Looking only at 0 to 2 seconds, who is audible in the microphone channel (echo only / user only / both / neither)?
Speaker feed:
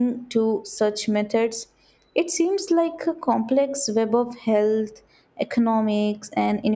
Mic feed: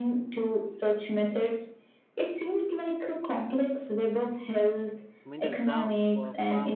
echo only